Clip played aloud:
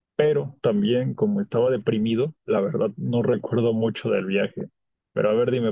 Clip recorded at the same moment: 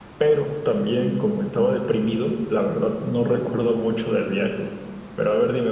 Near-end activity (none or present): none